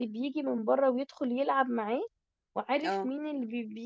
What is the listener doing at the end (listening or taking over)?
listening